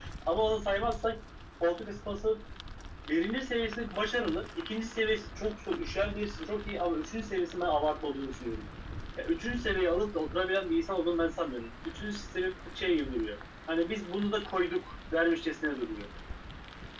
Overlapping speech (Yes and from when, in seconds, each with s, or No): No